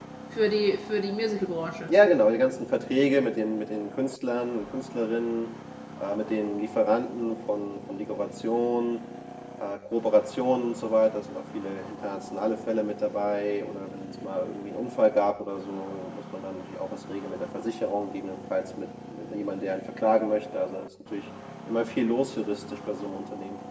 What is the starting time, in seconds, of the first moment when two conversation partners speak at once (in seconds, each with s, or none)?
none